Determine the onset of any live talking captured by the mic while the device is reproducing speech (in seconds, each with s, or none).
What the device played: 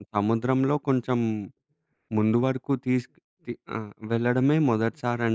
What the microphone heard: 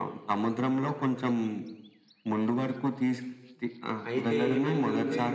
4.1 s